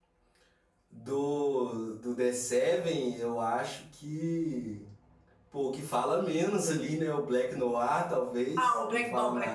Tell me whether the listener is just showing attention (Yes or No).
No